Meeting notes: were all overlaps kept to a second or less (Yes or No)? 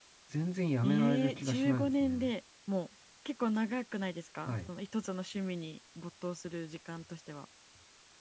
No